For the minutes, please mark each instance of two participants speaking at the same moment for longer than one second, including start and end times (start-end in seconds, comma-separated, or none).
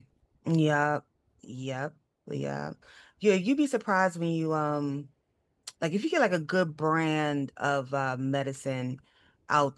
none